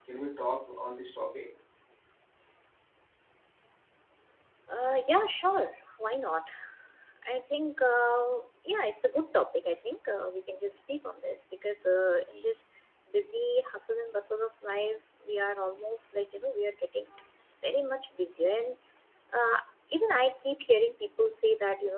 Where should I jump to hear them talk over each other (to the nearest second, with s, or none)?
none